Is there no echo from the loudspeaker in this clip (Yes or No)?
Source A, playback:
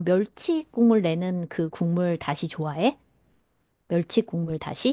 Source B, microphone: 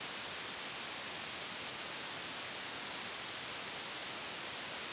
Yes